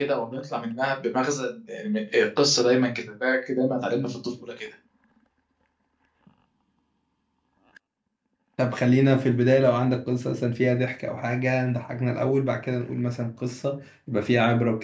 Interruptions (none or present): none